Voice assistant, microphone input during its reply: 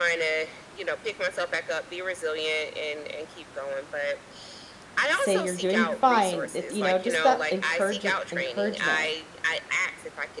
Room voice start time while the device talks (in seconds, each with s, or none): 5.1 s